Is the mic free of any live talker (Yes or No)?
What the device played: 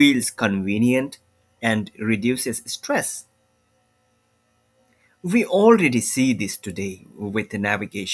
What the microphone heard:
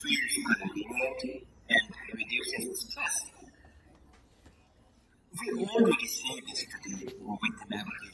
Yes